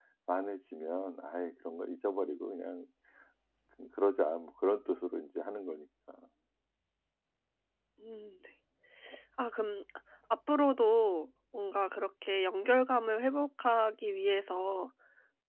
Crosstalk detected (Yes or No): No